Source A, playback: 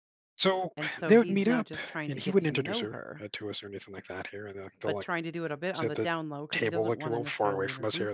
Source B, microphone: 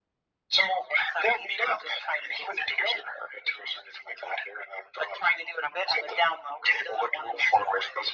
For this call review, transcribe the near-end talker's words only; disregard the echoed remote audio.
none

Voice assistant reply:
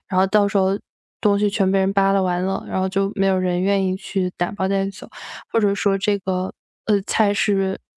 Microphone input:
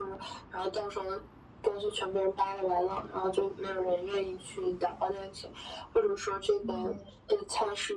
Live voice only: 嗯

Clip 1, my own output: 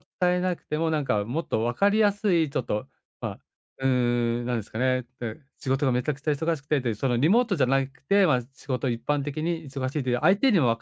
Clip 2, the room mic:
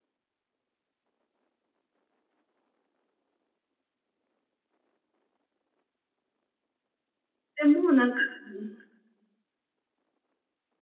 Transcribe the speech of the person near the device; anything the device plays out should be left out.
でもなんかうん、は

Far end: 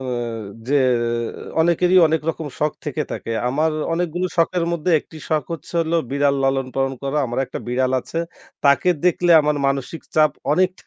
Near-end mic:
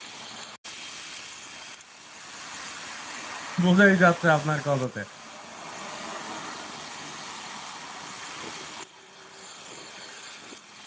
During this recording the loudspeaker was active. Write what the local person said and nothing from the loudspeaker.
বোঝাই যাচ্ছে আপনার কথাতে।

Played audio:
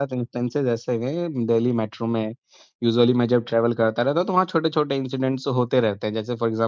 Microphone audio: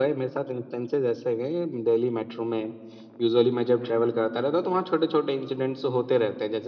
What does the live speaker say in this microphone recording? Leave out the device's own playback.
none

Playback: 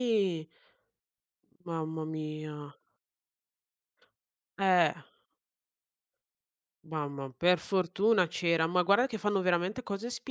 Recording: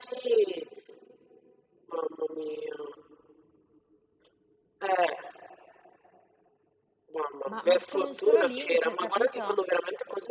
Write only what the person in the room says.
Ma ma con un solo link, capito?

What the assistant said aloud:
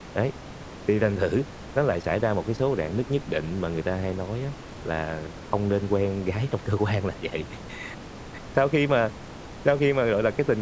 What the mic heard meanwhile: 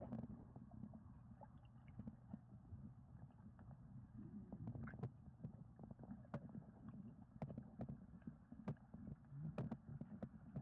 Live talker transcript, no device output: none

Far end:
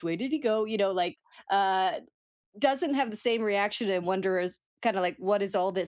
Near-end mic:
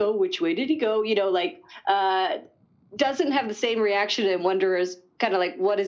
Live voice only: none

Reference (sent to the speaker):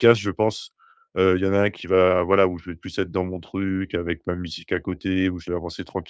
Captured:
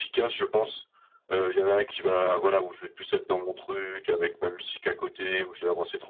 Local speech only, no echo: none

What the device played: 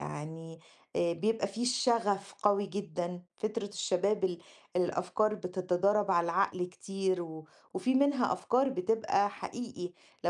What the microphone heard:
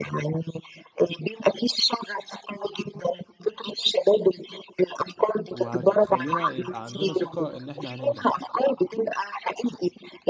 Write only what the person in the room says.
وهتخلّينا يبقى عندنا ثقة إن إحنا هننجح.

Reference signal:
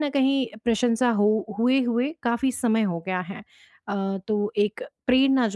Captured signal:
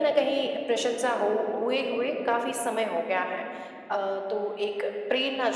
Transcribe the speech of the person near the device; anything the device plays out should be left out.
none

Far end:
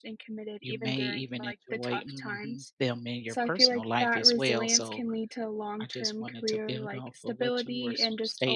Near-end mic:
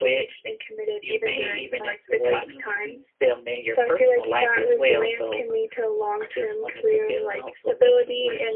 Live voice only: none

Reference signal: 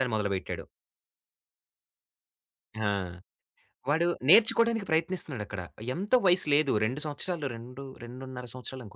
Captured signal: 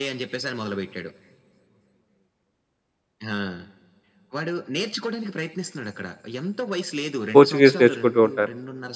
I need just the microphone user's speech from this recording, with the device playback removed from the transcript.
పోర్చుగీస్ నేర్చుకుంటూ ఉంటారు.

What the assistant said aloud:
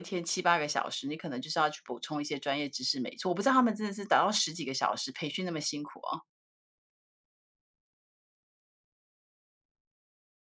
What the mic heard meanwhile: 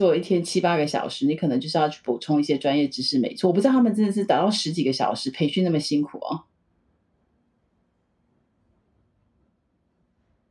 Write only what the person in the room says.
none

